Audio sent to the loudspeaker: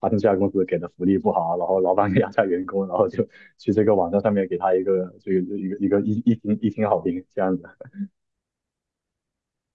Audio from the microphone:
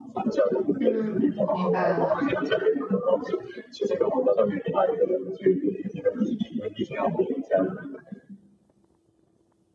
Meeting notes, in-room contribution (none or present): present